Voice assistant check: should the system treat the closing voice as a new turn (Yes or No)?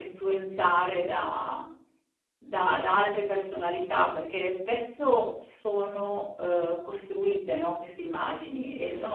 No